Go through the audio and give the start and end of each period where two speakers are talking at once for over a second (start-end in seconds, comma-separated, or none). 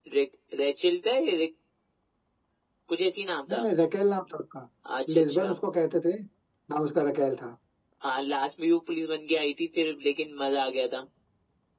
none